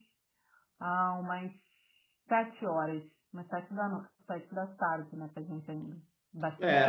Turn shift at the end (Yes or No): Yes